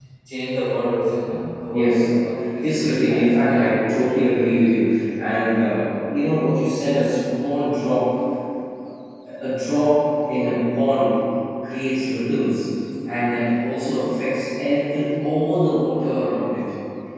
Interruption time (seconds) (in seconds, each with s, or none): 1.7 s